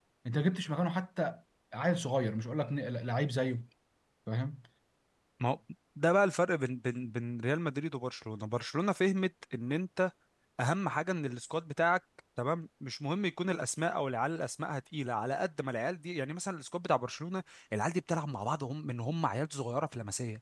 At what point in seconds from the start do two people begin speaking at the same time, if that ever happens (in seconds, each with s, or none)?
none